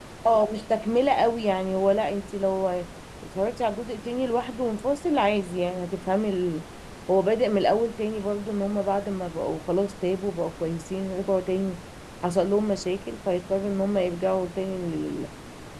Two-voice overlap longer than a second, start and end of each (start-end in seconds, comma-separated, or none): none